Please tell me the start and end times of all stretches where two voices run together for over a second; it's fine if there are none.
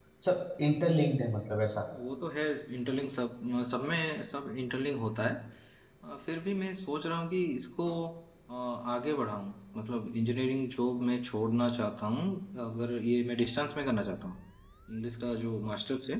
none

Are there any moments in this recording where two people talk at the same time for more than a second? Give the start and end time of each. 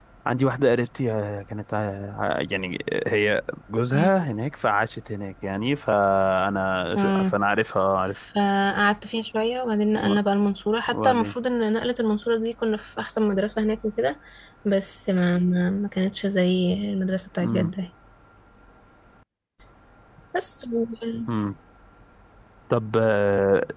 none

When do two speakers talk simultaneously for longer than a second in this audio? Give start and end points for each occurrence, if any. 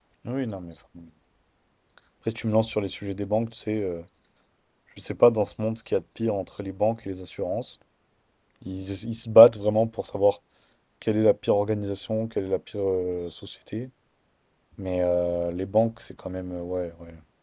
none

